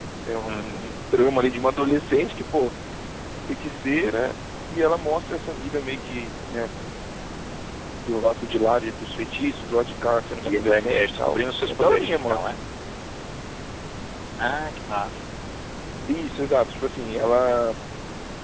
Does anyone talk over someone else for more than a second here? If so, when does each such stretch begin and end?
10.4-12.4

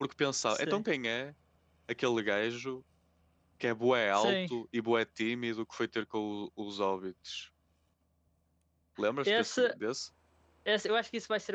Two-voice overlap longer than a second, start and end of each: none

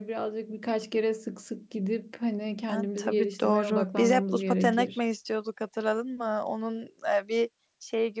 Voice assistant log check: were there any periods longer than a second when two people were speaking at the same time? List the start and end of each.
2.7-5.0

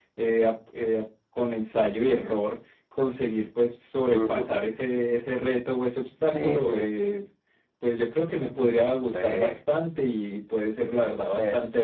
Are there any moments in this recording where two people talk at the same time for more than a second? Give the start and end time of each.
none

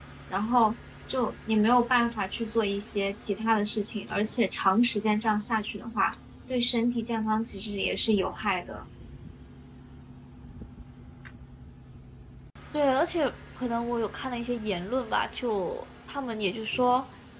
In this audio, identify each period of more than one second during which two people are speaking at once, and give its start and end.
none

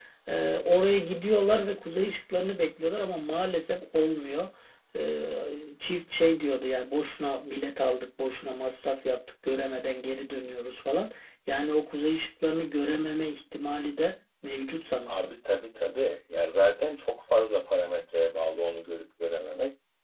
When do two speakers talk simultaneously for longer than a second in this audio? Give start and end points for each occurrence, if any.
none

